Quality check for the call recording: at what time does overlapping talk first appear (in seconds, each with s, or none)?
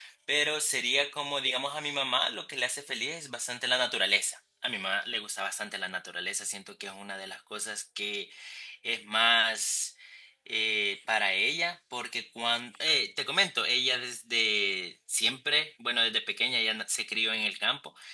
none